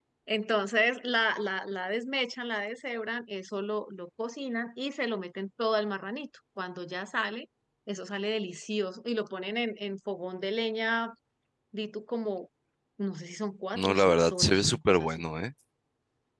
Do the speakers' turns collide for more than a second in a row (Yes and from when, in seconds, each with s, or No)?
Yes, from 13.8 s